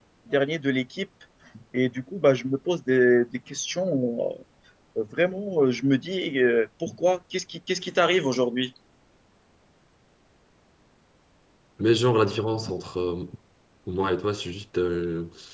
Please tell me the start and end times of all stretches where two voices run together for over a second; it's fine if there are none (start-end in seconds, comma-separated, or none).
none